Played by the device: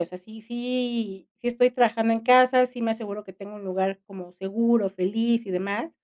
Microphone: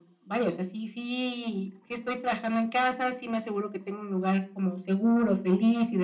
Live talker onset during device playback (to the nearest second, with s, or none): none